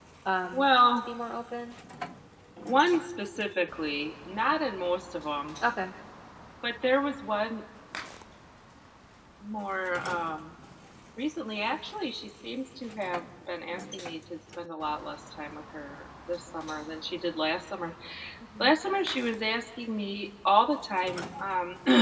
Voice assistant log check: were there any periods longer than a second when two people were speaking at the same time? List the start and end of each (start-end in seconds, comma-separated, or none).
none